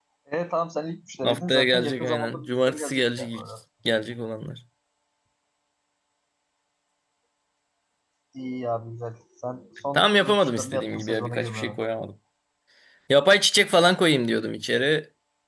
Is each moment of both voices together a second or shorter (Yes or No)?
No